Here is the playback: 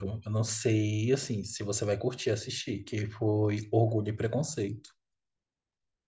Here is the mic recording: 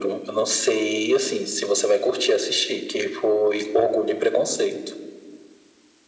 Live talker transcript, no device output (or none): none